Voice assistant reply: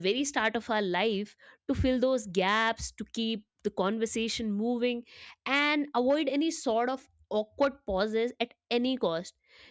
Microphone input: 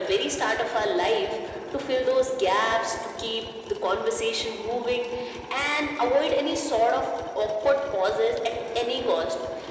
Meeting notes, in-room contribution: none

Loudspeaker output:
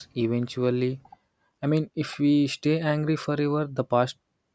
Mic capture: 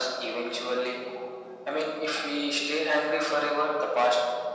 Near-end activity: none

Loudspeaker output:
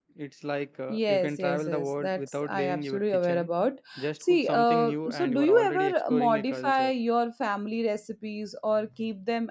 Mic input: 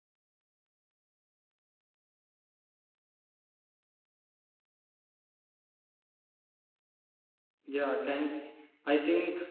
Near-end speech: present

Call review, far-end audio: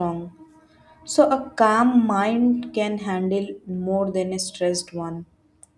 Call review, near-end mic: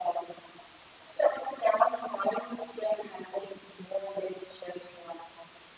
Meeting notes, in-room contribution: none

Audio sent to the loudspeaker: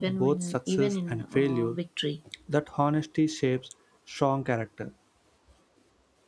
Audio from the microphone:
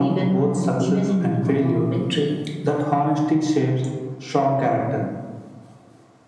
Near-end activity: none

